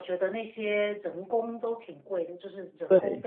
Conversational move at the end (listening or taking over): listening